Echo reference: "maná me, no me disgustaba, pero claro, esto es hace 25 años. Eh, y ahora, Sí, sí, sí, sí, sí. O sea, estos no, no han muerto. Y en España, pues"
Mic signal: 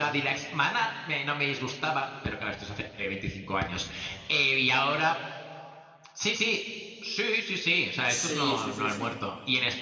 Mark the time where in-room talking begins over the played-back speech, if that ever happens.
8.1 s

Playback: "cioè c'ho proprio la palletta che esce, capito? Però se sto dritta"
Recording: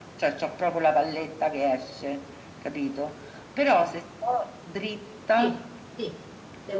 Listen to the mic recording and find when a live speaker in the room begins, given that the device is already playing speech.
5.3 s

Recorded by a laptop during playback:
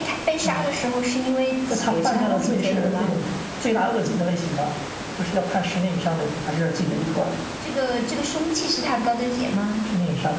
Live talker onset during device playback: none

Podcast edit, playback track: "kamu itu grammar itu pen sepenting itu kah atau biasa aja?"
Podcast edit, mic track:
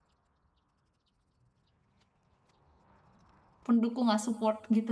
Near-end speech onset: 3.6 s

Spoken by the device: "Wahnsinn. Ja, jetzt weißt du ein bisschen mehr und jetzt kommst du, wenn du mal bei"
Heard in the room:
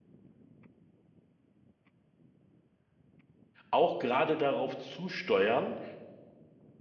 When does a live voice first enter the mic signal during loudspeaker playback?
3.7 s

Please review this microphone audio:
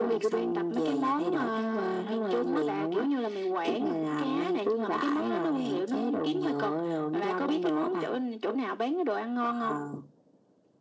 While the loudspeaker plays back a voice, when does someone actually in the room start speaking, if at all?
none

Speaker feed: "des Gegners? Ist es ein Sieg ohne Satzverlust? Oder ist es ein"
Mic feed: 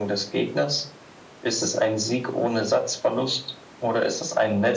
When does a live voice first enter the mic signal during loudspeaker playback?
none

